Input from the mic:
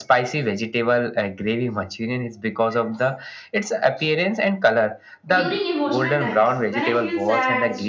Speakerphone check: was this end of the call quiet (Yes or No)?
No